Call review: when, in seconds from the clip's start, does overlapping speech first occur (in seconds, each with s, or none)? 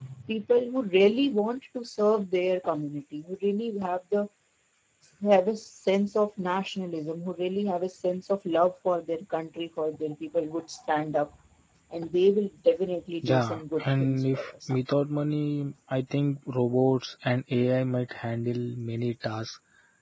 13.2 s